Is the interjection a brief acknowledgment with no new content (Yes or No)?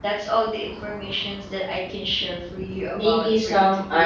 No